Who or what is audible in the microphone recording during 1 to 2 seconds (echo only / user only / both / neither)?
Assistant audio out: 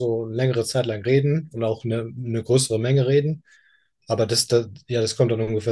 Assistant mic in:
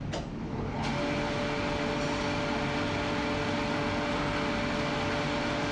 neither